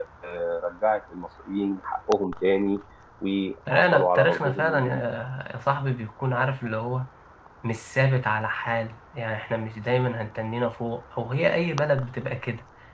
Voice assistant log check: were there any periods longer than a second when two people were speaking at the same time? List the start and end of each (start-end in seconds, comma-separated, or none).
3.7-5.0